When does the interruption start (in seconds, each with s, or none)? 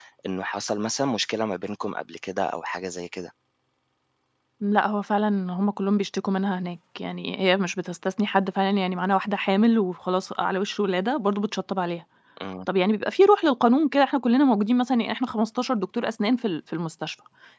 none